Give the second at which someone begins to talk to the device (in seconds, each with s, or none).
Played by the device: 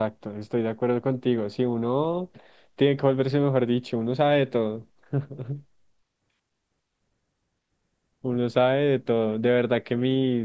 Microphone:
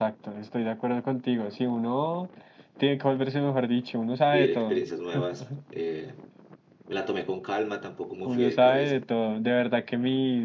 4.2 s